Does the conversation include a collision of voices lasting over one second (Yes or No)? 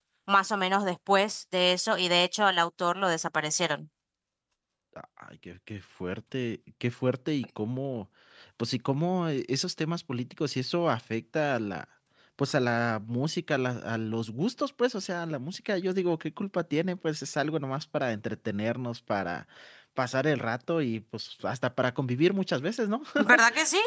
No